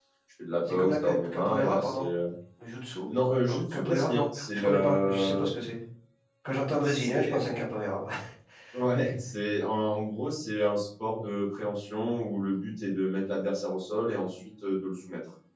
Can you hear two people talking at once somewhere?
Yes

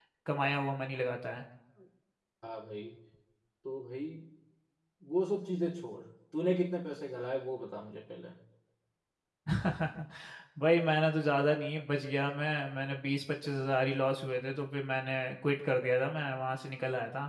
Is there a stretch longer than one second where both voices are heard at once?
No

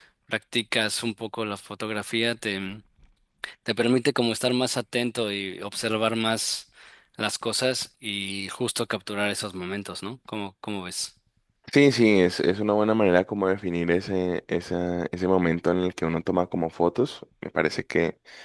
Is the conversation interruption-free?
Yes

